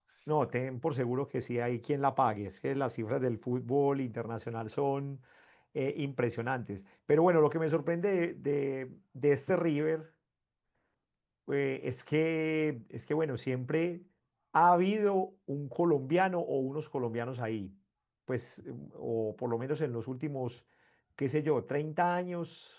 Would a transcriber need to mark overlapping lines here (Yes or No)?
No